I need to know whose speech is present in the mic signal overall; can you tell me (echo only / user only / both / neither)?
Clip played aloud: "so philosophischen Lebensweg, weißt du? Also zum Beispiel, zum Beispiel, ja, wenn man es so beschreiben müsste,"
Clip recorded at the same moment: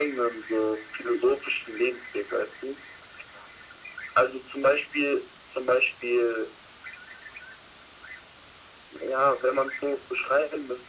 echo only